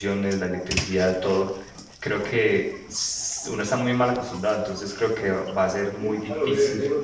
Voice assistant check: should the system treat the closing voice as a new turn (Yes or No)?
Yes